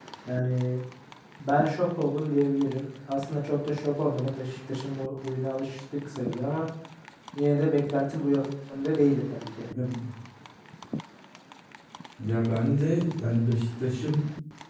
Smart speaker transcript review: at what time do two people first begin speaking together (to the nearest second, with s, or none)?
none